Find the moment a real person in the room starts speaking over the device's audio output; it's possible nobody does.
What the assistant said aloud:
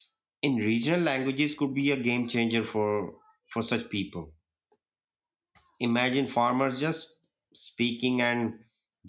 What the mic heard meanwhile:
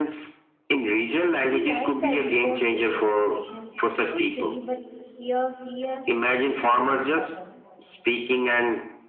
1 s

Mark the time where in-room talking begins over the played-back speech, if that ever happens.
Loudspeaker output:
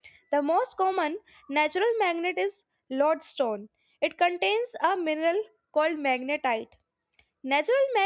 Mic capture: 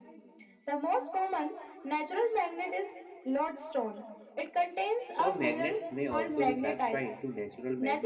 5 s

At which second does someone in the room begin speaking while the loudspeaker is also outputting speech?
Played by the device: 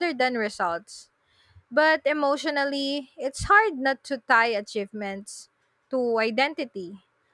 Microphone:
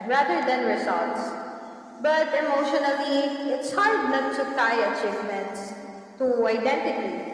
none

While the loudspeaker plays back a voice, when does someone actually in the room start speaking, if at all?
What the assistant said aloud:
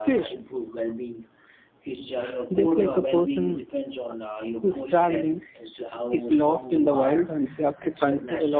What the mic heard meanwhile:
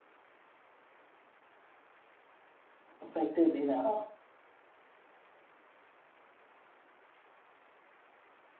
3 s

